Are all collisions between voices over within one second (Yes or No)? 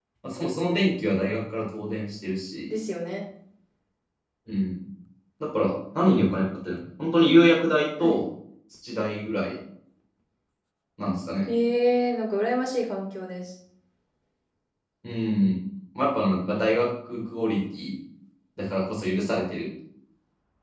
Yes